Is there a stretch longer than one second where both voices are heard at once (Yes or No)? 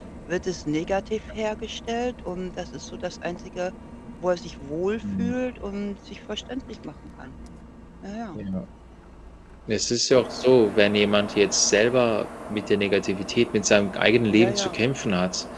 No